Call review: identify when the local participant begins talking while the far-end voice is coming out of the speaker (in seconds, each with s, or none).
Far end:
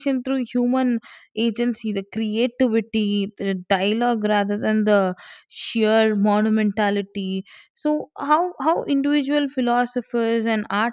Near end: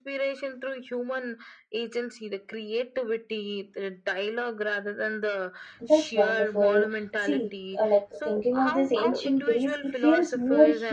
5.8 s